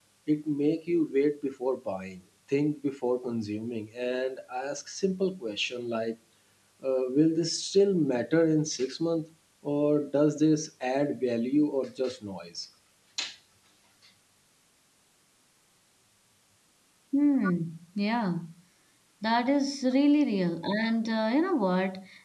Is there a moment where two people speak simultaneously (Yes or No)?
No